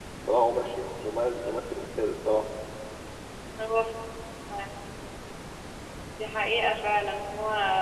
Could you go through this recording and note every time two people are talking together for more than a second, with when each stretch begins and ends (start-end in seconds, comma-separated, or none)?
none